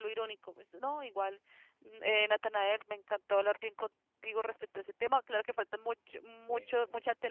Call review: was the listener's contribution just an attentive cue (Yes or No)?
Yes